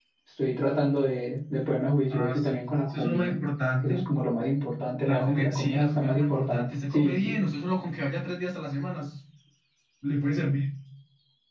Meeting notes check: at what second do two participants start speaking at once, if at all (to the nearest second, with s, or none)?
2 s